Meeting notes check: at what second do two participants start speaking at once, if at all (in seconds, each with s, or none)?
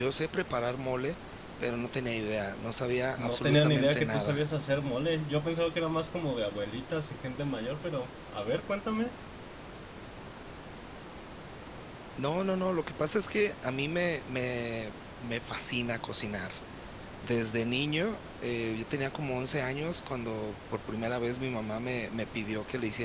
3.2 s